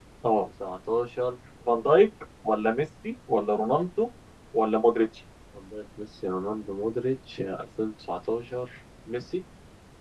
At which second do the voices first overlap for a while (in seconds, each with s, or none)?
none